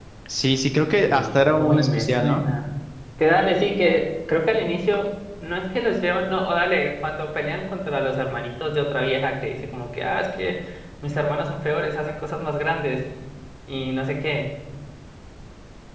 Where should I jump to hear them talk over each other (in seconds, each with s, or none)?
1.1 s